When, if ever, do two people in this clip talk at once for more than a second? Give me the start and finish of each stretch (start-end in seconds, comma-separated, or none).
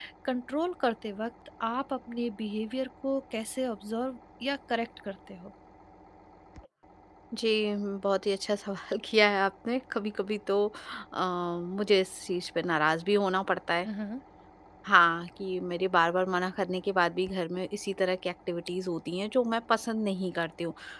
none